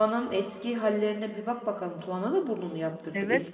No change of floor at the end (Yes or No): No